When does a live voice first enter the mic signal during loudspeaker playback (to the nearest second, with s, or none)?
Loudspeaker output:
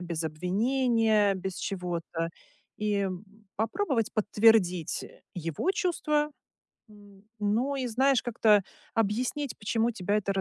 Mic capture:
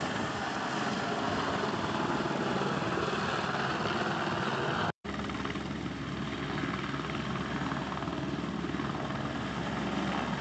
none